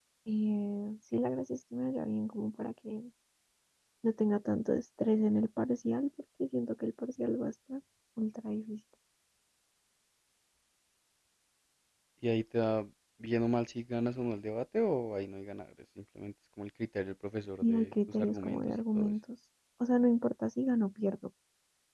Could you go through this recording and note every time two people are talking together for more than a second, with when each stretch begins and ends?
17.6-19.1

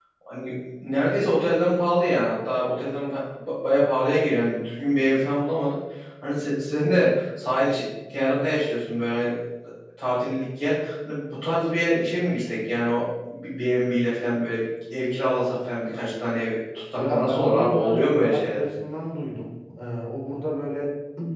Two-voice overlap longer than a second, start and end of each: 17.0-18.6

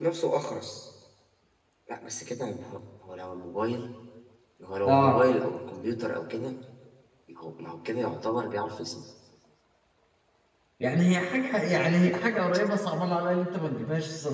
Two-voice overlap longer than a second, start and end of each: none

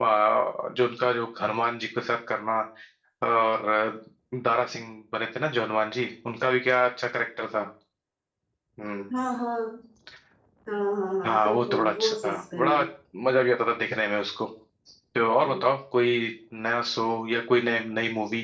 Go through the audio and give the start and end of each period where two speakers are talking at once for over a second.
11.3-12.8

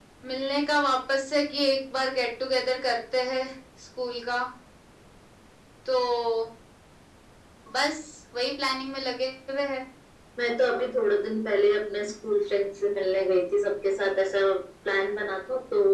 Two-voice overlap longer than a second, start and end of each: none

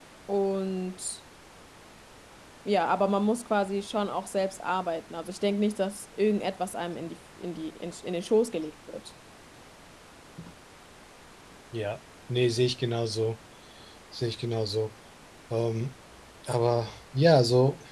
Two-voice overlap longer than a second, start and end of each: none

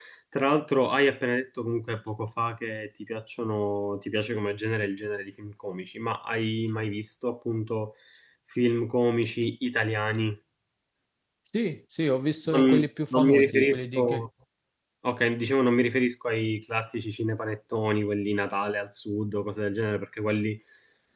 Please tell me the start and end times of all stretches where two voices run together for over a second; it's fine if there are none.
12.5-14.2

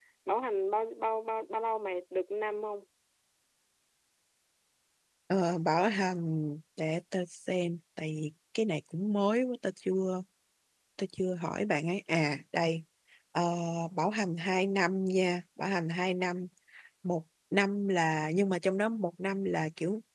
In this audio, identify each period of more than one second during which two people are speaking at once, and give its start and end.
none

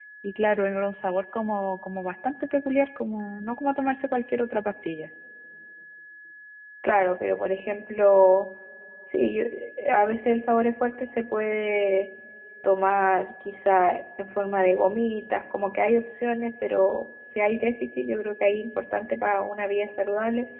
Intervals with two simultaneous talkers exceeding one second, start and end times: none

